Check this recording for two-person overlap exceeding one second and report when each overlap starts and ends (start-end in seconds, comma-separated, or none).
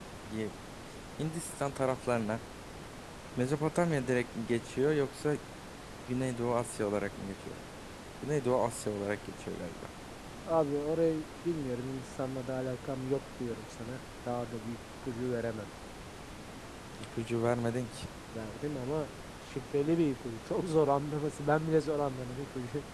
none